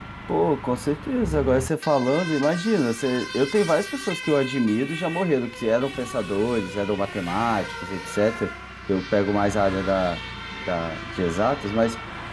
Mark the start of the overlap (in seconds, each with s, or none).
none